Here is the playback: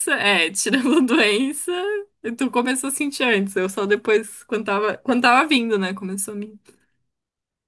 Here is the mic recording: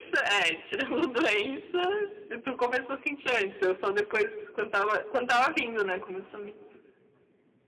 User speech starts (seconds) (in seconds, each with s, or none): none